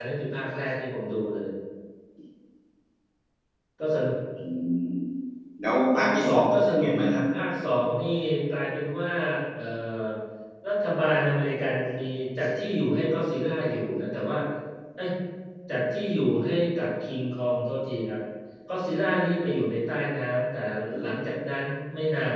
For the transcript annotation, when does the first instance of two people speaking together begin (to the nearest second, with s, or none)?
6 s